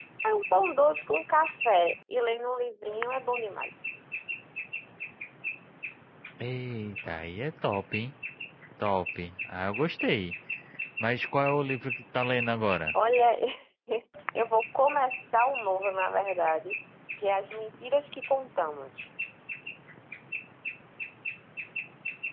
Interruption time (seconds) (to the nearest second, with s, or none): none